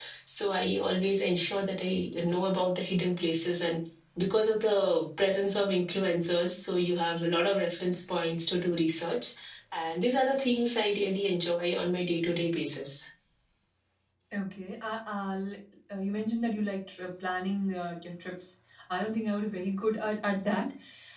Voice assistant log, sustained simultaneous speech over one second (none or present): none